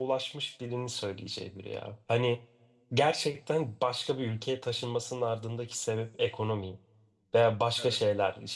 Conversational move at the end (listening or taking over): listening